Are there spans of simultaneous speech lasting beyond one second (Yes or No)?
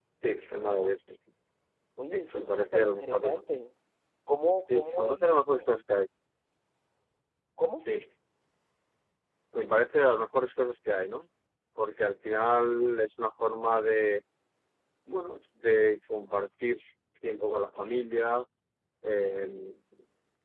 Yes